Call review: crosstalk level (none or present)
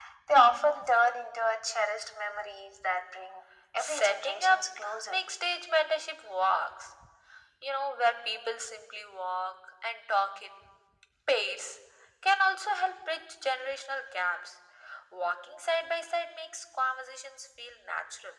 present